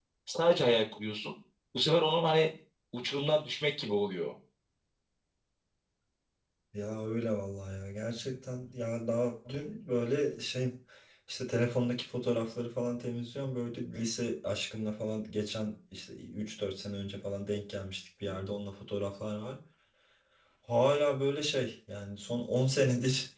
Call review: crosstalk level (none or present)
none